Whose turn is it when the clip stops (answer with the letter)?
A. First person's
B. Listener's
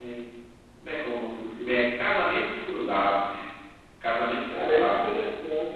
B